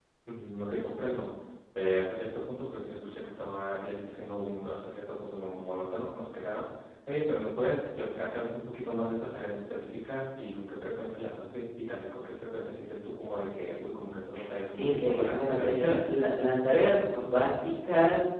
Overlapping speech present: Yes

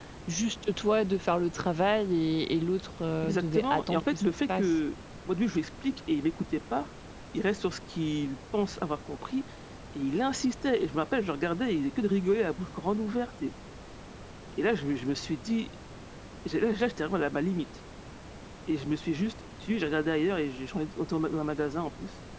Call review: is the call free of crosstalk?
No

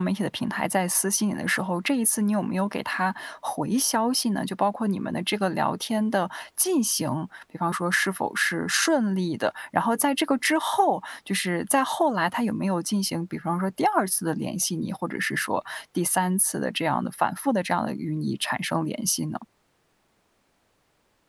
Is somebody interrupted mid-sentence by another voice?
No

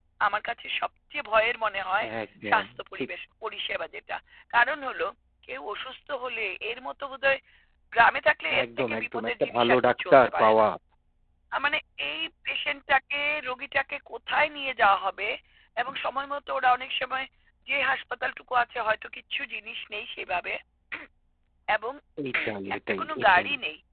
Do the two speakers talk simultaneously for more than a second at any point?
Yes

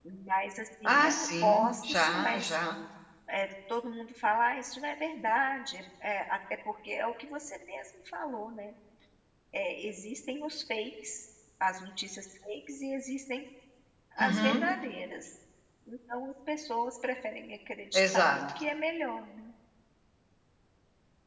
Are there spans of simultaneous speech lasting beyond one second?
Yes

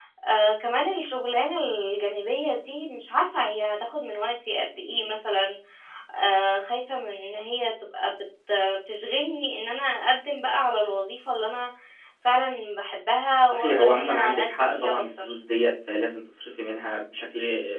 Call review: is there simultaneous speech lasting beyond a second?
Yes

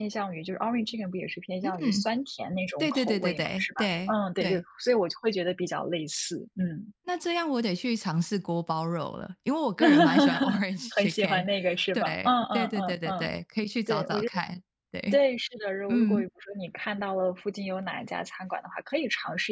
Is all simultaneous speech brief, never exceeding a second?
No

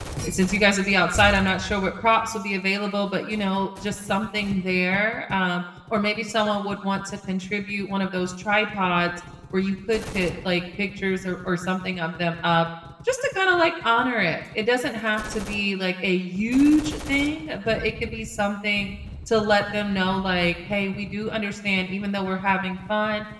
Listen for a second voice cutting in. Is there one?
No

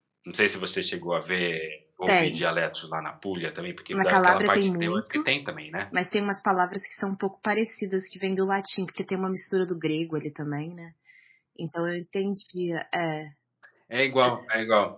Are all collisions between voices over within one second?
No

